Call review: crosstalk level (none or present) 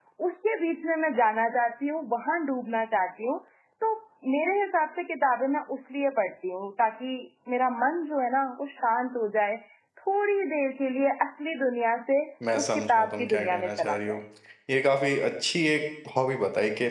present